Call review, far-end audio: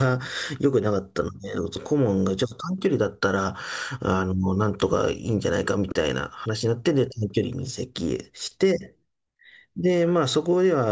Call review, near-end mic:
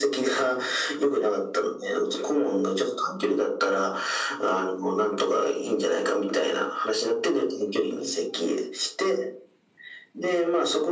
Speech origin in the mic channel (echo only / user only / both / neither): echo only